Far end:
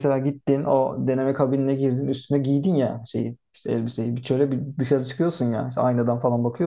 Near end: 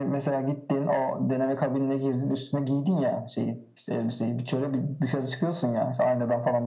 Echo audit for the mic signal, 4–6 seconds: echo only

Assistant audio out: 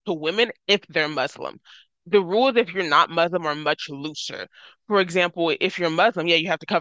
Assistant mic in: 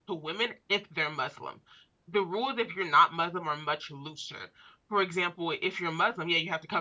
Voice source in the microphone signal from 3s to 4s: echo only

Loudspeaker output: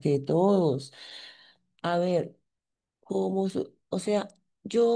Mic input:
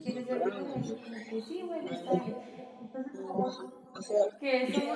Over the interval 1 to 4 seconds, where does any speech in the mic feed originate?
both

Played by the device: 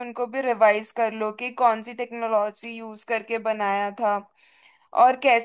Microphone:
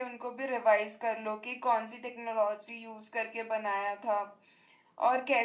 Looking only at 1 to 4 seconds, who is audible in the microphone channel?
echo only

